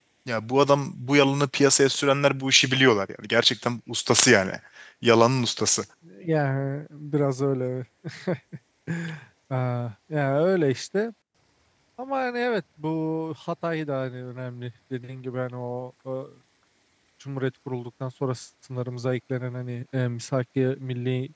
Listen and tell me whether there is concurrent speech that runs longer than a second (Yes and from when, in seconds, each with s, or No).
No